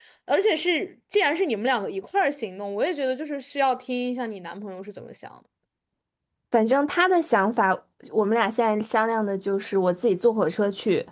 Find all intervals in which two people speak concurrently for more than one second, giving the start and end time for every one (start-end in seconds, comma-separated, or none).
none